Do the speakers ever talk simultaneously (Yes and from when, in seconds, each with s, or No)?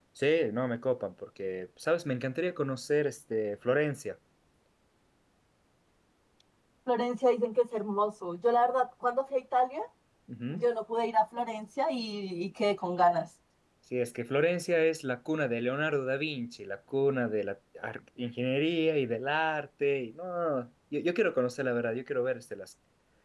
No